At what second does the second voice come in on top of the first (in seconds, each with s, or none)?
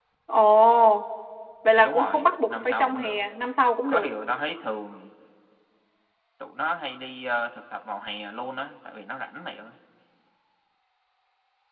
1.8 s